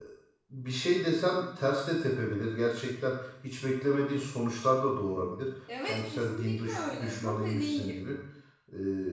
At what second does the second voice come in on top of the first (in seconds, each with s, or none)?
5.7 s